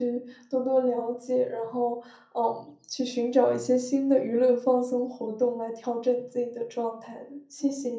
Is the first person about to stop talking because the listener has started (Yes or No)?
Yes